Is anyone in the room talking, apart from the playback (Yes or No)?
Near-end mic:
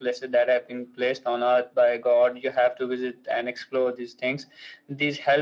No